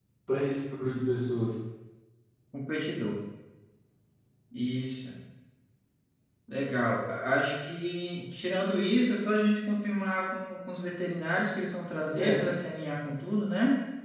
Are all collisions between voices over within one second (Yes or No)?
Yes